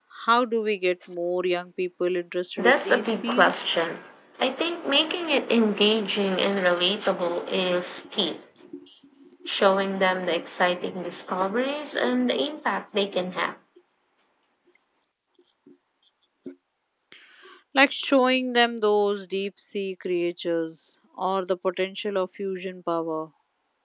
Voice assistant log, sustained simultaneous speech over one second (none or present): present